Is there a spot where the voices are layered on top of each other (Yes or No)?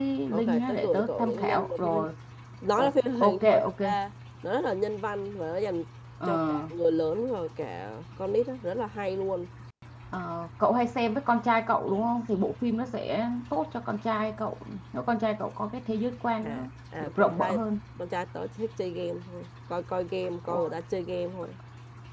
Yes